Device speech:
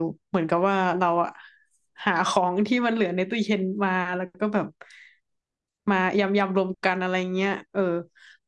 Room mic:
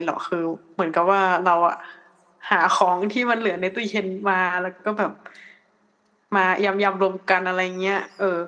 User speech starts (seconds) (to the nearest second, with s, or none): none